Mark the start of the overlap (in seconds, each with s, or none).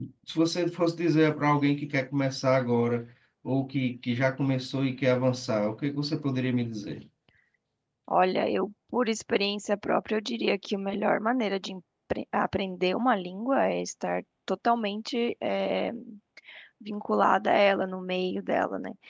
none